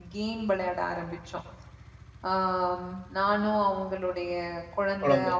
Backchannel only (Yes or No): Yes